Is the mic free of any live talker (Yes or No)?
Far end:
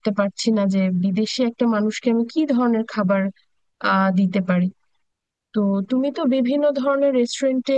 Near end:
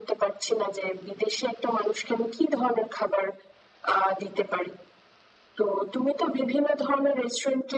Yes